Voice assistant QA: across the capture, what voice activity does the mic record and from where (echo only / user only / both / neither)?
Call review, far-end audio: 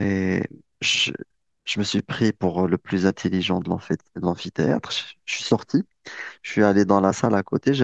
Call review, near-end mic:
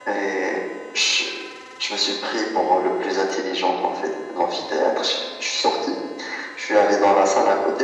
echo only